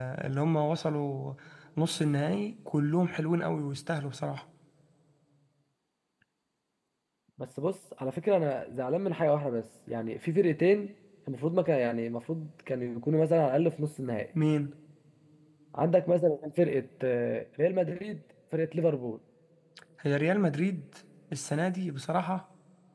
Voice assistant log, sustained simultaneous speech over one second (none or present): none